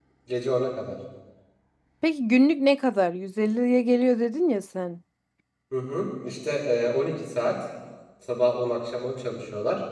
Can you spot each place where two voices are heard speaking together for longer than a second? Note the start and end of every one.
none

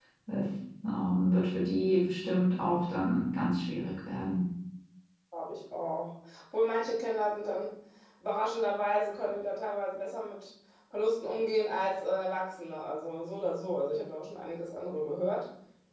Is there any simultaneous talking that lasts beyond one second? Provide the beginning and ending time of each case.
none

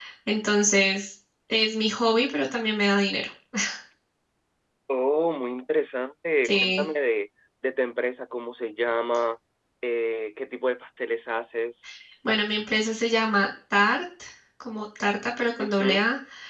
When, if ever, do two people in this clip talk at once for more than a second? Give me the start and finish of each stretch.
none

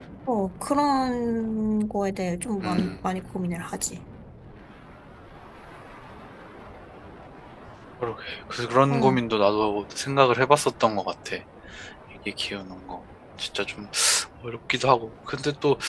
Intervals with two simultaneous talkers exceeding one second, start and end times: none

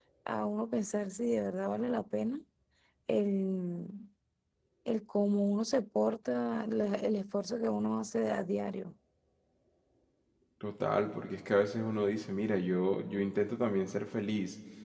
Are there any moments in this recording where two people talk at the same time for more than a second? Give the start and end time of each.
none

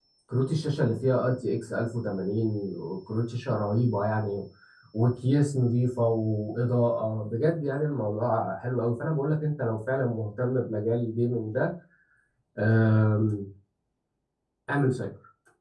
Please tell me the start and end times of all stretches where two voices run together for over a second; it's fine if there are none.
none

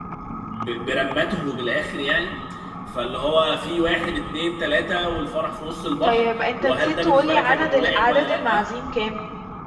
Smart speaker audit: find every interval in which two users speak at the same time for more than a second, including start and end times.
6.0-8.7

